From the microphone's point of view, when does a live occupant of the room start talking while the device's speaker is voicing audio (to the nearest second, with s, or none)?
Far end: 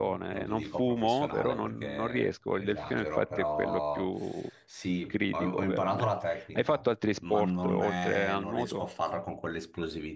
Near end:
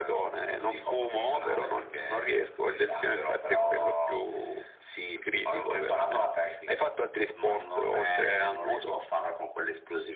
none